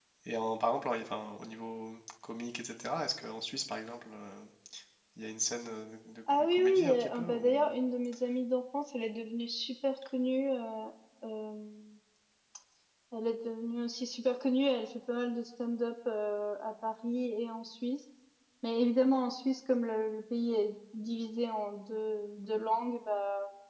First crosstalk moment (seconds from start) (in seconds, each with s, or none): 6.5 s